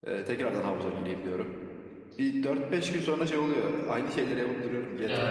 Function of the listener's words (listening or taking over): taking over